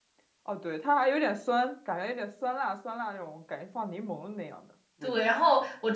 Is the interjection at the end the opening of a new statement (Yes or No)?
Yes